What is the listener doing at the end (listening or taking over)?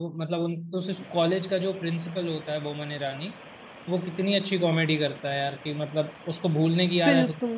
listening